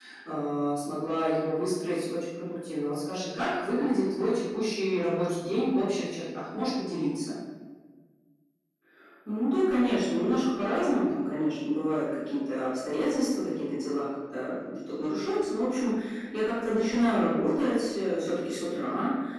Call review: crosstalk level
none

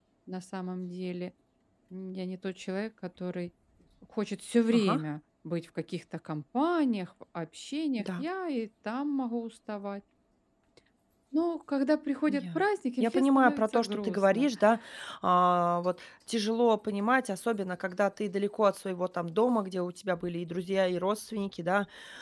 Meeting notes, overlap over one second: present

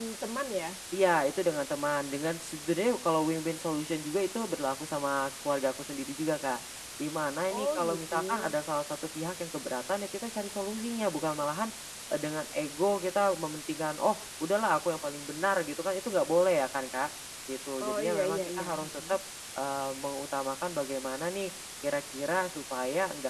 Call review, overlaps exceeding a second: present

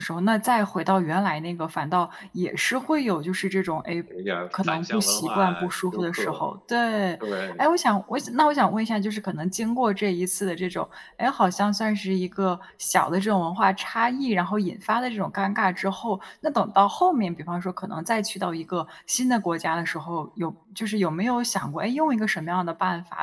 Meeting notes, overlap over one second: present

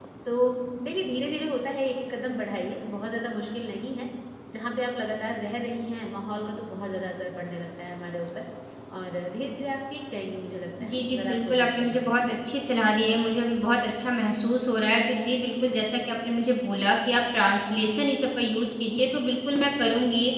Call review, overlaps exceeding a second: present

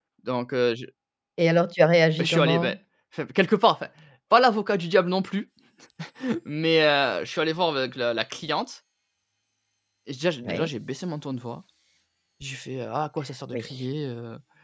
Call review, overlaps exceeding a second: none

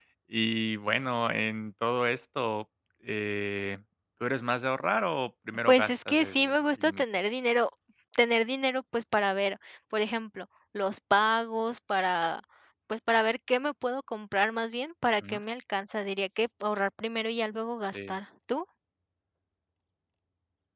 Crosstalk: present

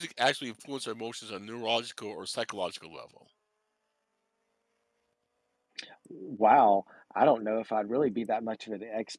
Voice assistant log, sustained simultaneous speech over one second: none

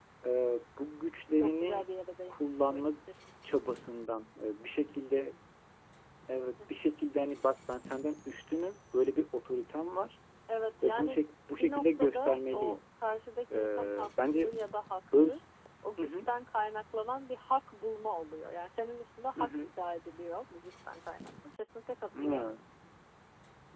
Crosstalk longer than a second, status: present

